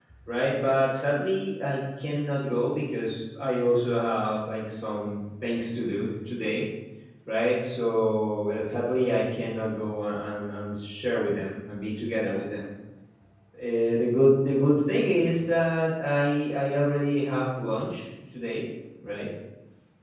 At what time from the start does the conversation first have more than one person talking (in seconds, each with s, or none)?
none